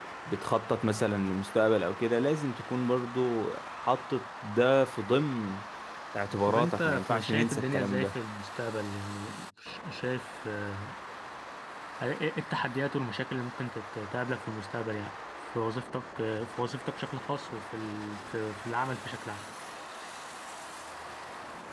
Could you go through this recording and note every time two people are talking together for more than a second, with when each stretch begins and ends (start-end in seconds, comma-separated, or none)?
6.4-8.1